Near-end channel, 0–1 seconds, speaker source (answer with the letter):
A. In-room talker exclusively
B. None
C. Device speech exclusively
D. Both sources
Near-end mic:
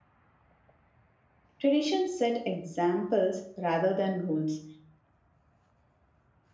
B